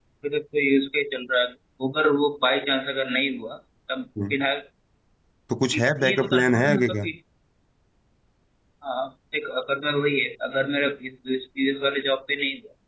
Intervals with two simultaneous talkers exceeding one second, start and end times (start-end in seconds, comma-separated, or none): 5.7-7.0